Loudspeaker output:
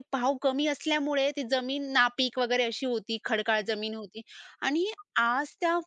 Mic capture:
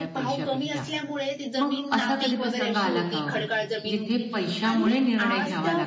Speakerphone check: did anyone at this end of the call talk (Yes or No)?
Yes